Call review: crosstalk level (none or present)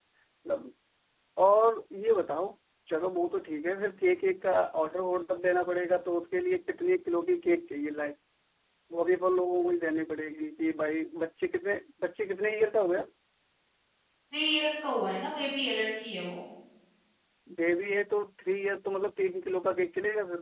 none